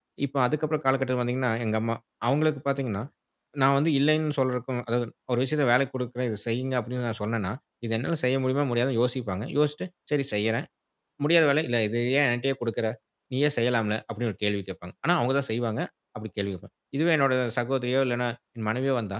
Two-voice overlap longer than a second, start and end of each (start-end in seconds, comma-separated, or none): none